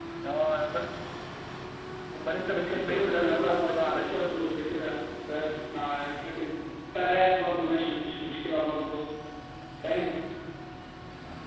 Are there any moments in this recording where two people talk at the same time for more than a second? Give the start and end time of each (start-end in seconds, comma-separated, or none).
2.6-4.3